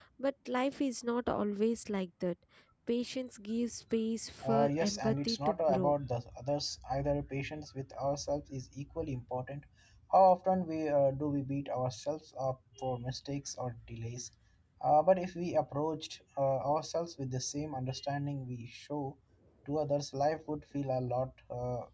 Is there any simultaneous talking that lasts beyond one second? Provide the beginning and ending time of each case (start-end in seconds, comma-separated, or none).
4.4-5.9